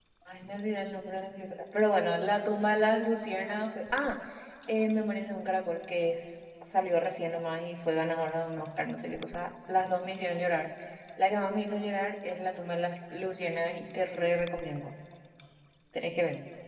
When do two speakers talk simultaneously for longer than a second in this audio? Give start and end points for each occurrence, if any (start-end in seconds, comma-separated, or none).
none